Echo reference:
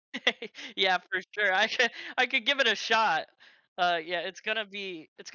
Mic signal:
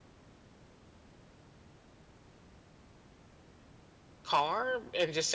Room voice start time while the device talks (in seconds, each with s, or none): 4.2 s